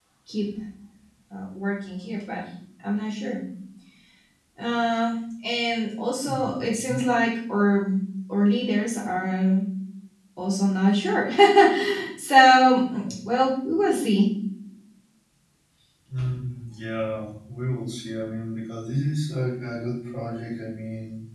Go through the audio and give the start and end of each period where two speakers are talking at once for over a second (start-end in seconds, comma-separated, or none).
none